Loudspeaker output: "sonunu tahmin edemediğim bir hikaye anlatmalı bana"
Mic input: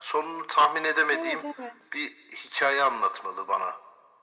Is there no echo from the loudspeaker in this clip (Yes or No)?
No